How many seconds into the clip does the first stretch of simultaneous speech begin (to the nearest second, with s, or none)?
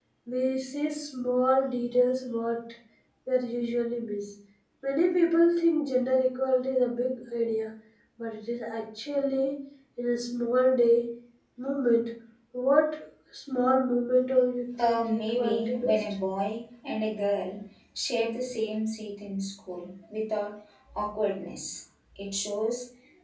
15 s